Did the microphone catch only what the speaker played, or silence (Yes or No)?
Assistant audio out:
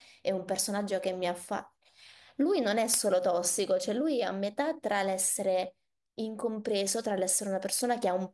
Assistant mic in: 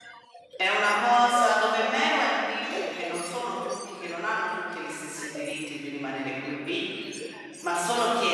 No